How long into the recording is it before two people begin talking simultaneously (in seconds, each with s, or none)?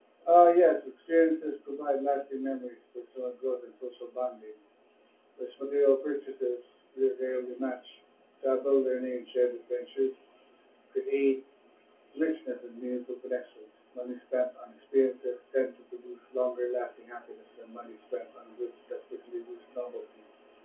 none